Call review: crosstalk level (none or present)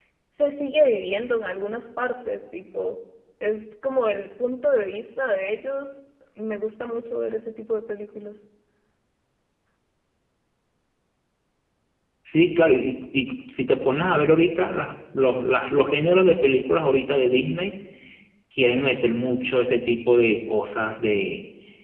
none